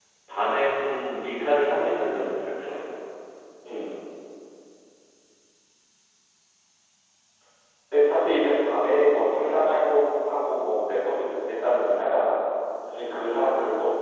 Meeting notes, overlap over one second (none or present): none